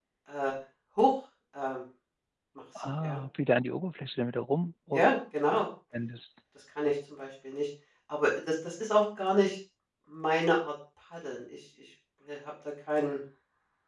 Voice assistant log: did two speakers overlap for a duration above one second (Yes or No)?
No